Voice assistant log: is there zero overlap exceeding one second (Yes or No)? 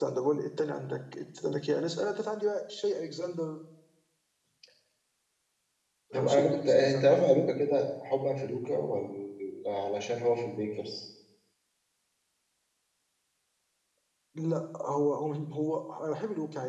No